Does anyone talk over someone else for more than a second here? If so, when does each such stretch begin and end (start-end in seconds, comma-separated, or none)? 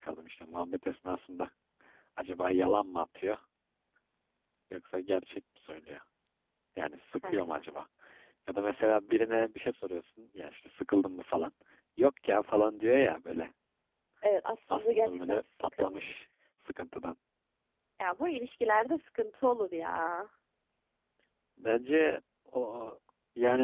14.7-16.0